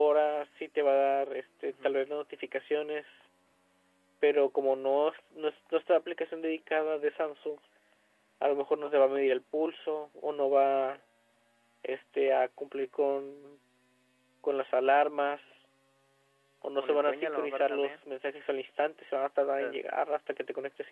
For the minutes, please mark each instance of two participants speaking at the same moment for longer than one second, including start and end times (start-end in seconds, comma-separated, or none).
16.8-18.0